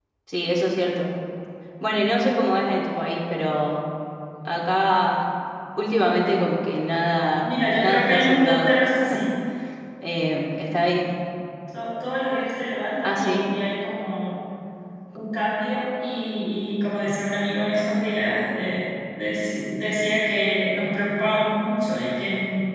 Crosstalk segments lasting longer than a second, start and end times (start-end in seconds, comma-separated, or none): 7.4-8.8